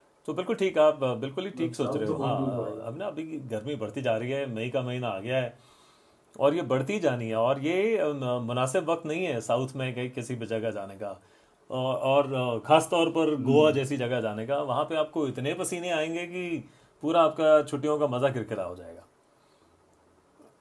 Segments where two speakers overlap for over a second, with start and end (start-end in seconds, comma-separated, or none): 1.5-2.9